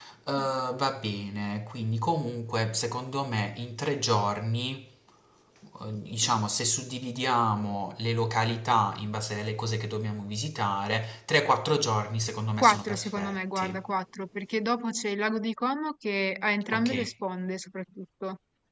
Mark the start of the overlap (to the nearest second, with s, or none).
13 s